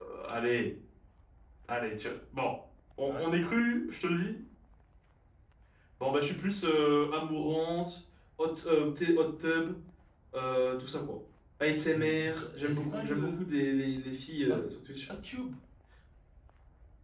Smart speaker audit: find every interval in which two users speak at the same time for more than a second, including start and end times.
11.9-13.4

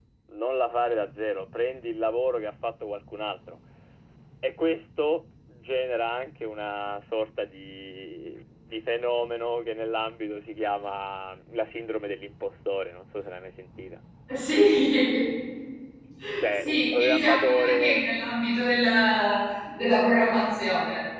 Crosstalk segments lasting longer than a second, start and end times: 16.5-18.0

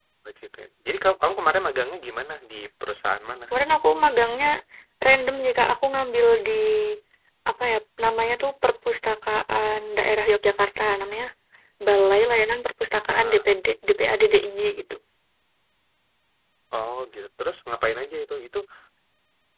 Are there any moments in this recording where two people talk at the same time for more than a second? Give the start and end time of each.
none

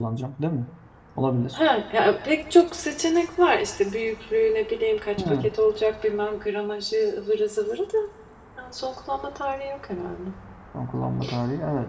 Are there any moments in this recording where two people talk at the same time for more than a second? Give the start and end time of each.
none

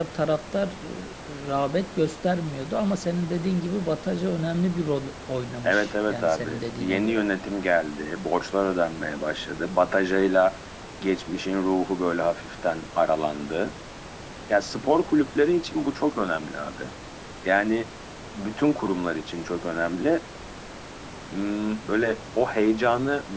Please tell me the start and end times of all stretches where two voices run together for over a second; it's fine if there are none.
5.6-7.2

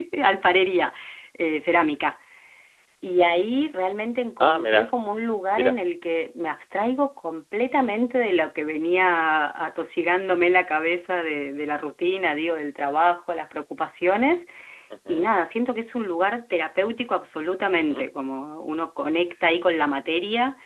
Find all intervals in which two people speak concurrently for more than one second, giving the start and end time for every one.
none

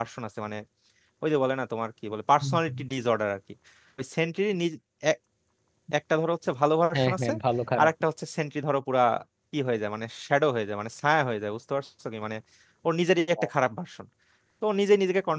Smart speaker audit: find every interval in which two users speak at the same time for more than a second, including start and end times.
none

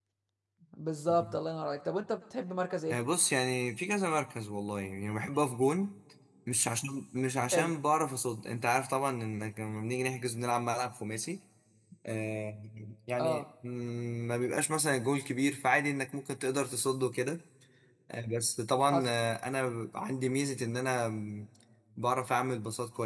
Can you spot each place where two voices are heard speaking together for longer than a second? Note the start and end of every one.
none

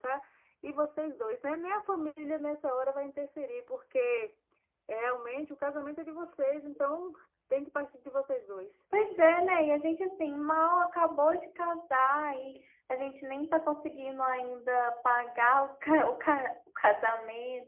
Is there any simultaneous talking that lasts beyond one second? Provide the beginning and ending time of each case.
none

